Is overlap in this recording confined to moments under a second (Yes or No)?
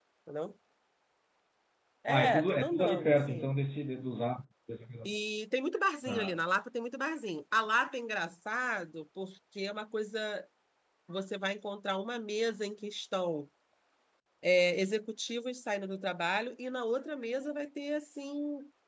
No